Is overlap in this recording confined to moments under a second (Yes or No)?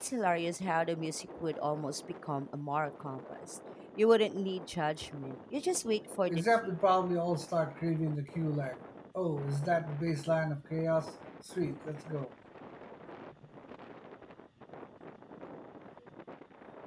Yes